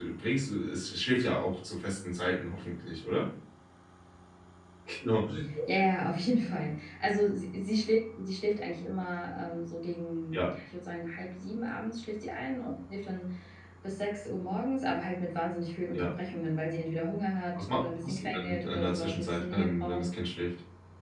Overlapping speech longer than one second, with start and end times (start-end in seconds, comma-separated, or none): 17.6-20.0